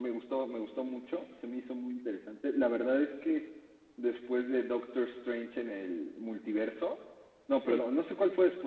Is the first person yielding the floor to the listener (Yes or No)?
No